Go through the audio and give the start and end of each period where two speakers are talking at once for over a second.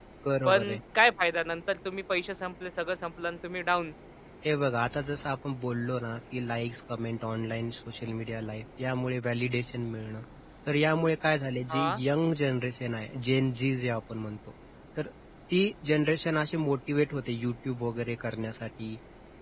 none

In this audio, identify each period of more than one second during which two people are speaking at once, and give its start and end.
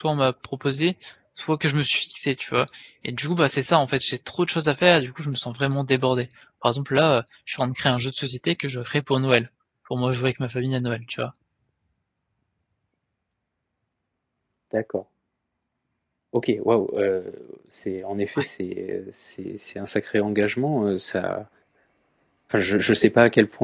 none

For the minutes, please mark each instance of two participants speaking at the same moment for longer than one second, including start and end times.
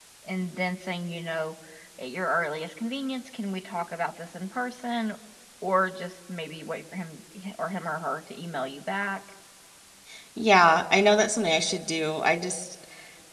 none

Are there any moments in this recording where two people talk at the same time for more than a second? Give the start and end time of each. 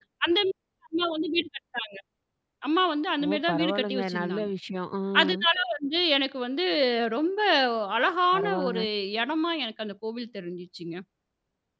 3.2-4.5

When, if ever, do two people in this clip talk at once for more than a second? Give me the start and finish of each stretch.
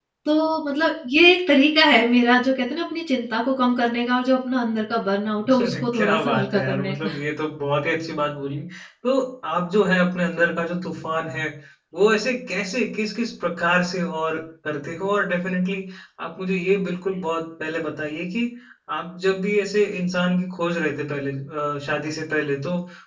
5.5-7.1

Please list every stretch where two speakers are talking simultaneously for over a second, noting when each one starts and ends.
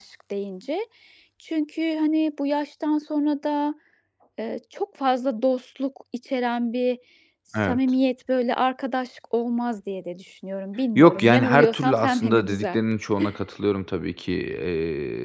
11.0-12.8

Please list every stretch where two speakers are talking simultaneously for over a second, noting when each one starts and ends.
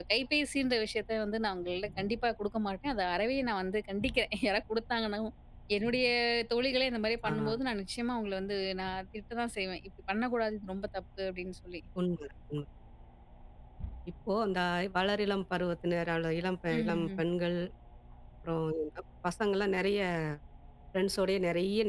none

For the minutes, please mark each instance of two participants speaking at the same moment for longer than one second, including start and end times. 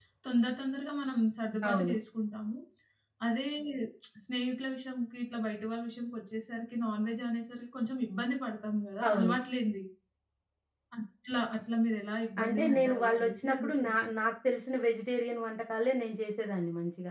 12.4-14.1

